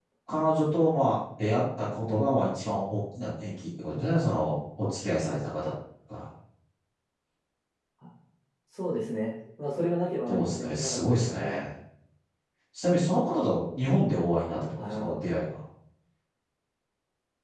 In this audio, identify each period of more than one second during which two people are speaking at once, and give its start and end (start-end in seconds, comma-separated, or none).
10.3-11.6